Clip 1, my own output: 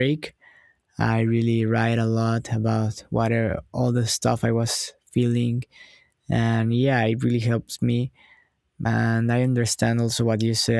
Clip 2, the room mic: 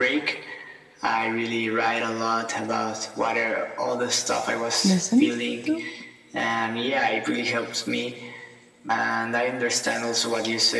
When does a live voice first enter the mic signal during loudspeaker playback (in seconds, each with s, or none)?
4.8 s